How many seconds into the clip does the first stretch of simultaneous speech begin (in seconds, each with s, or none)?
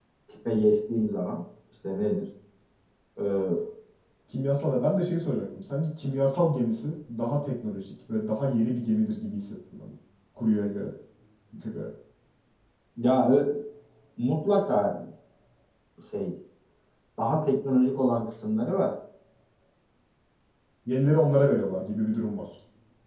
none